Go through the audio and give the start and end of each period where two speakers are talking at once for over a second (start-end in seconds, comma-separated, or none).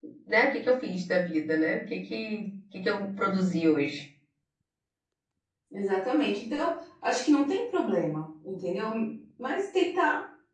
none